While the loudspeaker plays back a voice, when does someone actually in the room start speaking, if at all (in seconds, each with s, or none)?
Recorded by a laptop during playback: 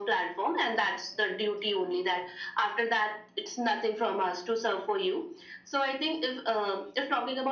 none